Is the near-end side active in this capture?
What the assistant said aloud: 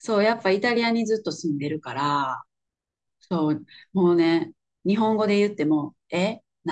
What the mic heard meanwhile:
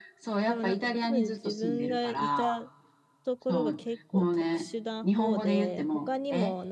Yes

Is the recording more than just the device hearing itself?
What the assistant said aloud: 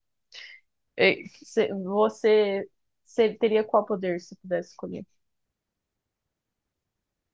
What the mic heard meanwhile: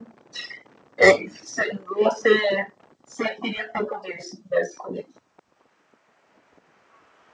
No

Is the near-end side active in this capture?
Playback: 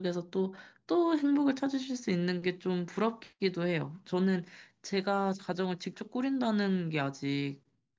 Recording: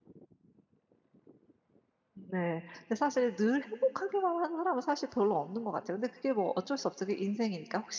Yes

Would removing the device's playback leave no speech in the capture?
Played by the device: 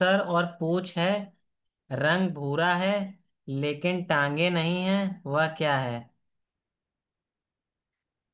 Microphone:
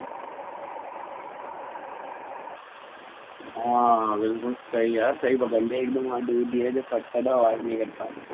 No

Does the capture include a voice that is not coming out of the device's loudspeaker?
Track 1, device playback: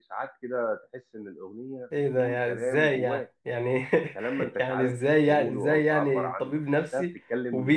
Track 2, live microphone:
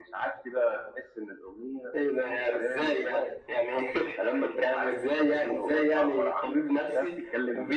No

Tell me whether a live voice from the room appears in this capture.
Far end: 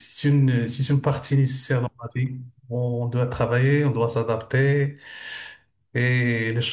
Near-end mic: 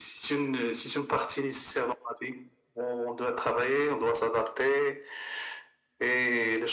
No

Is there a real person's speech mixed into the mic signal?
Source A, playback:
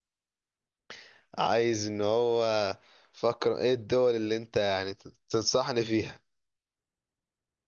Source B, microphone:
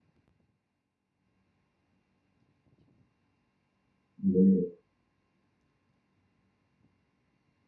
Yes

